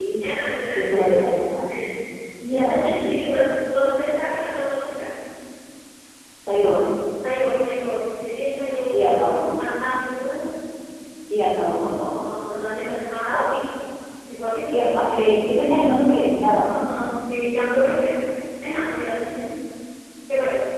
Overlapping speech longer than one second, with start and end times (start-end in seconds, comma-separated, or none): none